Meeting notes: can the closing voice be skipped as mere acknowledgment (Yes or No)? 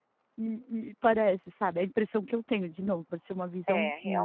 No